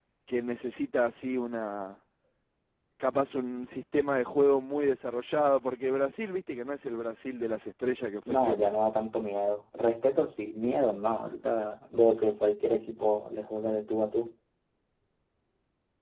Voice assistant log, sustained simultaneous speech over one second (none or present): none